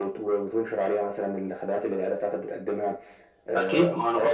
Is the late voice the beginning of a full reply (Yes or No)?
Yes